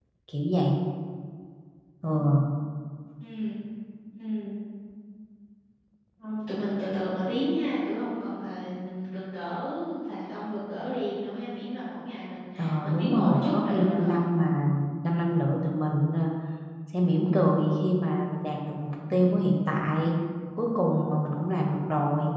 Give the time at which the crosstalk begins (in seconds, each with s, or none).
12.8 s